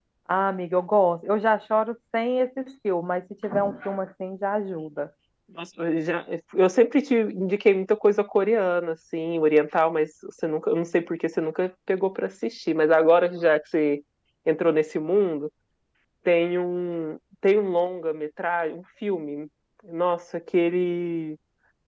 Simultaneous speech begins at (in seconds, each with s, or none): none